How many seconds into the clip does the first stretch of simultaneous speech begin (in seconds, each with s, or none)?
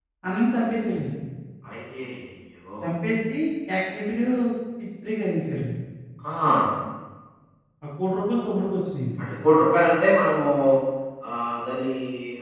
none